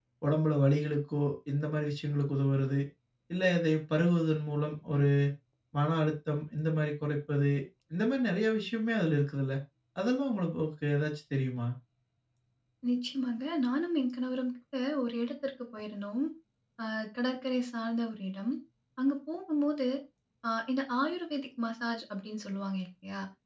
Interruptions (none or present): none